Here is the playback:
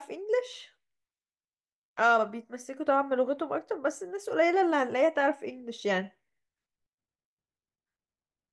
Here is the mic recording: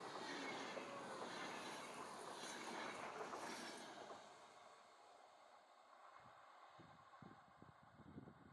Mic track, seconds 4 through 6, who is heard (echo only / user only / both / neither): neither